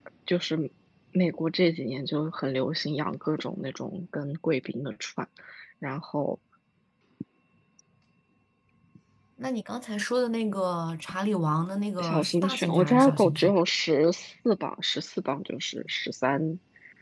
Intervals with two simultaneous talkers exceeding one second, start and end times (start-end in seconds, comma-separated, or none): 12.0-13.5